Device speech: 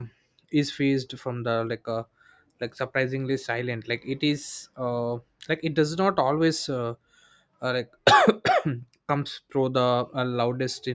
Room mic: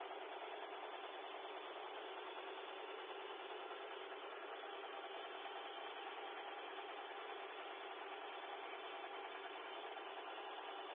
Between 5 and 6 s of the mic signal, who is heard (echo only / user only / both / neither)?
neither